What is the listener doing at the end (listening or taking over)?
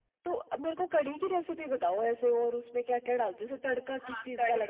taking over